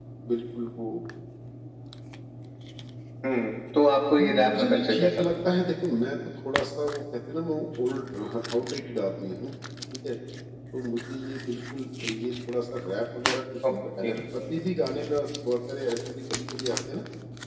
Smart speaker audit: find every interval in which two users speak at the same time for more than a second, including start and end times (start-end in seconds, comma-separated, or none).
4.2-5.6